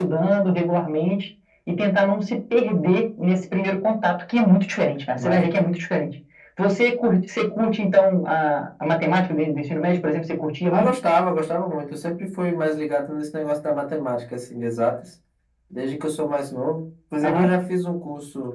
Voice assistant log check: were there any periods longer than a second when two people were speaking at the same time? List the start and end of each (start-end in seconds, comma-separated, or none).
none